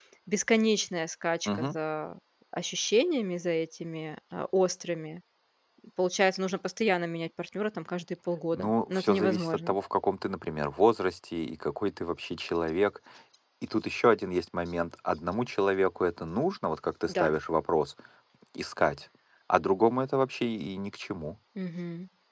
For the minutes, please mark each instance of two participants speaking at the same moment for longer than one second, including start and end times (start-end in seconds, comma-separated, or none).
8.5-9.7